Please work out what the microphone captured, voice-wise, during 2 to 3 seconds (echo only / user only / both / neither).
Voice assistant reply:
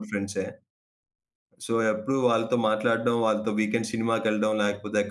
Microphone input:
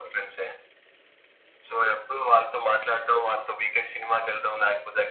echo only